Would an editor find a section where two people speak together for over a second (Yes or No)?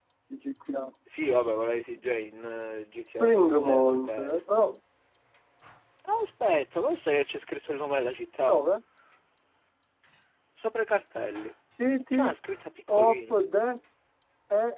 Yes